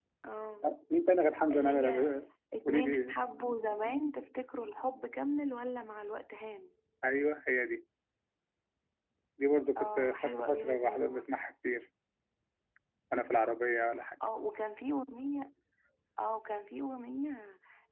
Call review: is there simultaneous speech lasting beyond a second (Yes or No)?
Yes